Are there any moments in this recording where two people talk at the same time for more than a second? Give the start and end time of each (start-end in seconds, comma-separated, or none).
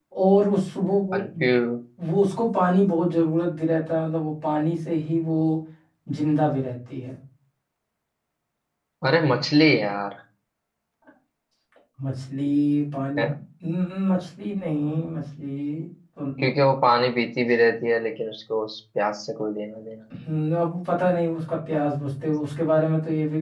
none